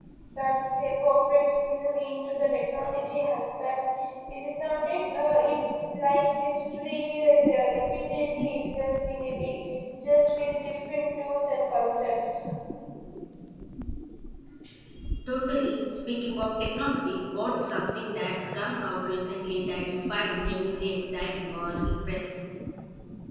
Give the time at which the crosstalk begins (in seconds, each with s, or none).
none